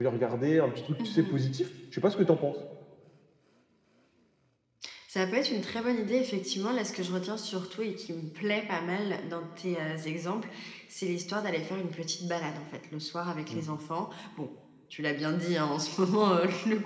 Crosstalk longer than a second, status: none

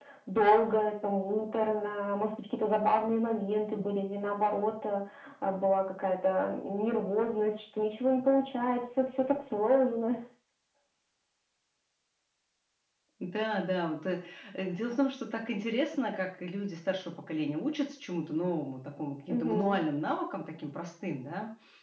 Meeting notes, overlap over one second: none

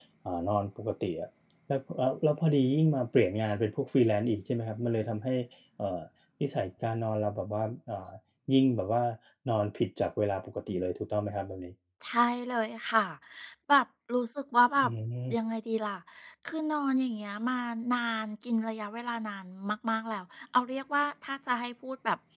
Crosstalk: none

